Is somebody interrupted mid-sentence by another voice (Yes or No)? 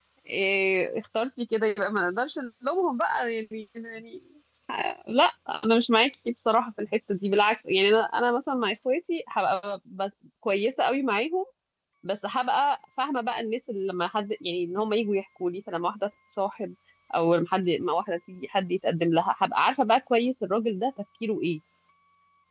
No